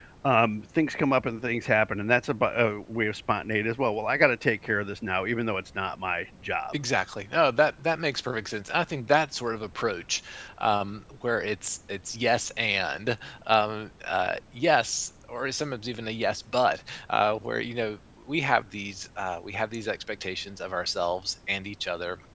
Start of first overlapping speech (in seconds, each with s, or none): none